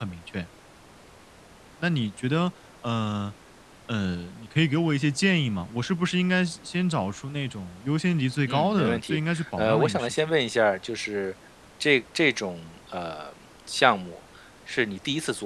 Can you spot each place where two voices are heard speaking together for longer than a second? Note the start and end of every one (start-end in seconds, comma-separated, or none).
8.5-10.2